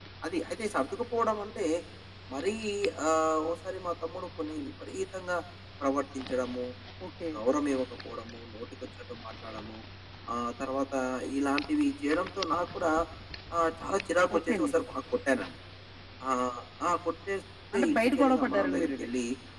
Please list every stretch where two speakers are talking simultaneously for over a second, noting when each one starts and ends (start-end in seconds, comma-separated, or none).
17.7-19.1